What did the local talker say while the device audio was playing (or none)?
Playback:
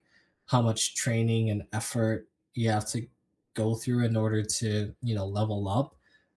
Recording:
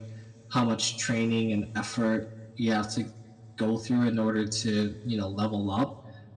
none